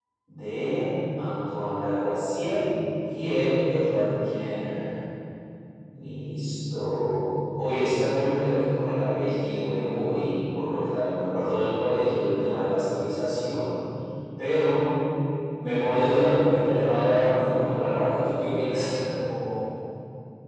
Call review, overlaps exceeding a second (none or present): present